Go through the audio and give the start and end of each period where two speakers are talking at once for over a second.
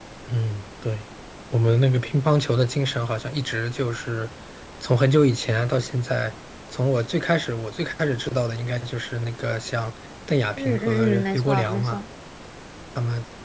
10.6-12.0

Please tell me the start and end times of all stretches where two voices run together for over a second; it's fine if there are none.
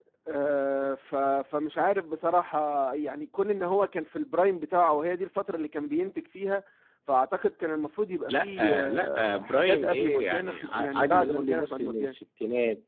8.3-12.1

